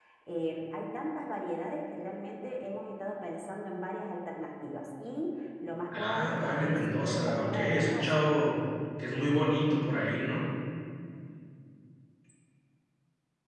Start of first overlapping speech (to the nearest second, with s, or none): 6 s